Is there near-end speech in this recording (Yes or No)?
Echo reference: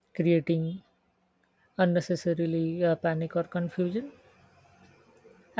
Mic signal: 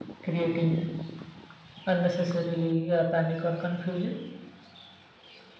No